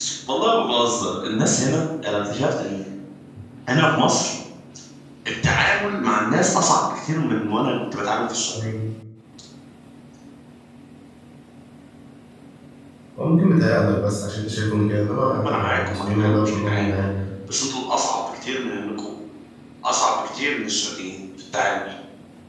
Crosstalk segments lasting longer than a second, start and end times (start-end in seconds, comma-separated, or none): 15.4-16.9